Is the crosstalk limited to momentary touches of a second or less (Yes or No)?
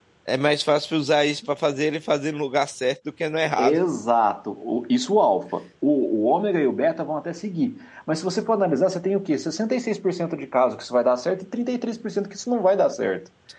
Yes